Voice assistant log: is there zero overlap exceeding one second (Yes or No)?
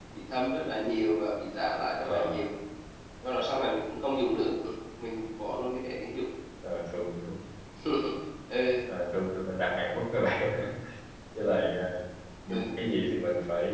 Yes